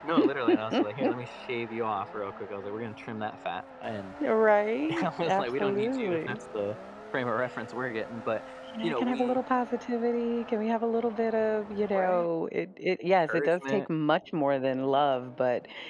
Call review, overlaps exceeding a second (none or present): present